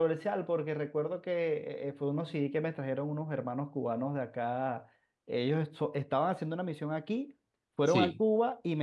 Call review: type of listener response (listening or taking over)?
listening